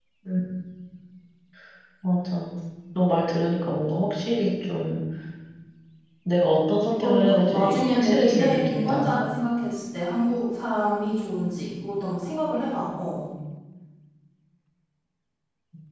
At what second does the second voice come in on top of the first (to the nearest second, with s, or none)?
7 s